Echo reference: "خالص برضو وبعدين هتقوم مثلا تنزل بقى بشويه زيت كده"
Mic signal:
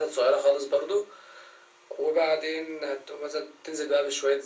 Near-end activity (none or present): none